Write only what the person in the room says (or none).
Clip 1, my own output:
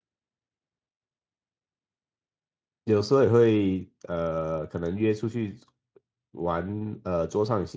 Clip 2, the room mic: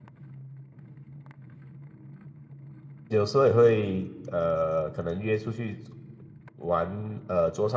none